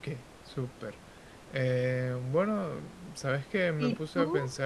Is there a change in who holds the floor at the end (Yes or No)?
No